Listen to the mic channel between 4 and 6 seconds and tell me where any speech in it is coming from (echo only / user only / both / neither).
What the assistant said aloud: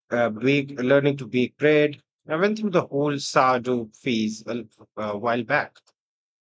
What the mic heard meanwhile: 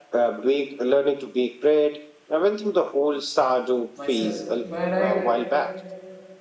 both